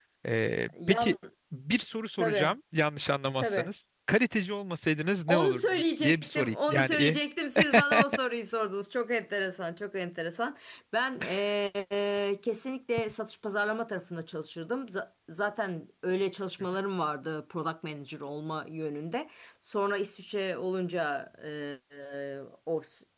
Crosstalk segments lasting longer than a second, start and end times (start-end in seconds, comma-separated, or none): 5.3-7.2